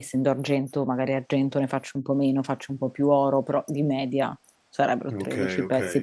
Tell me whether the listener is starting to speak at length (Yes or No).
Yes